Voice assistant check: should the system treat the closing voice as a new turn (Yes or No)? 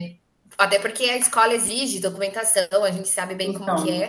Yes